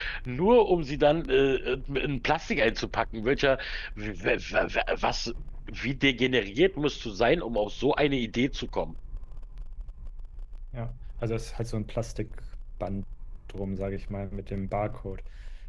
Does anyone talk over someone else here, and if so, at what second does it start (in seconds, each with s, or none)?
none